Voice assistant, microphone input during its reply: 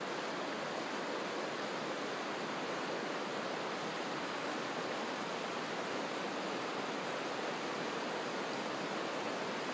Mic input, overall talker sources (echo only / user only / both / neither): neither